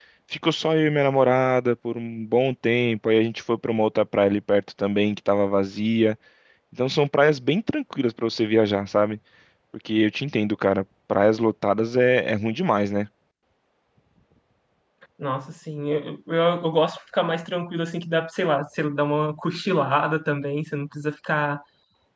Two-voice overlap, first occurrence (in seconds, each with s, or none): none